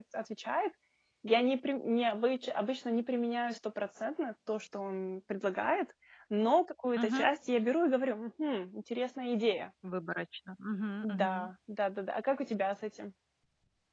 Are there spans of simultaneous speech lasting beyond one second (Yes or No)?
No